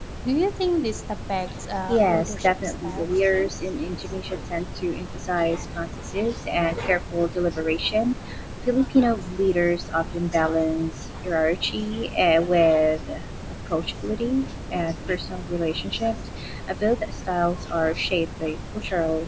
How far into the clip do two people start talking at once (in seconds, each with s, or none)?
1.9 s